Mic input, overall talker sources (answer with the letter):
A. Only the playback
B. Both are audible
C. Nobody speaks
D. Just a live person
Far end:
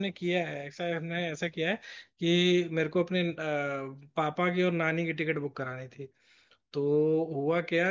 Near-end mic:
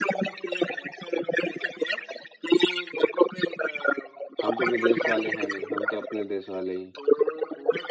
B